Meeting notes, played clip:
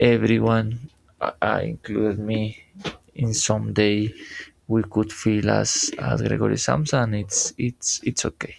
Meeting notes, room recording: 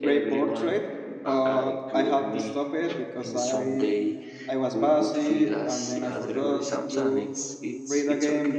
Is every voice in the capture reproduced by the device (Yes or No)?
No